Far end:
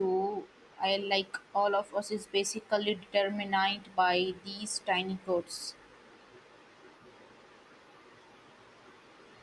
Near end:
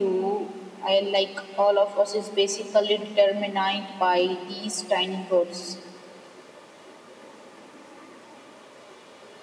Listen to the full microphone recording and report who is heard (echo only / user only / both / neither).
echo only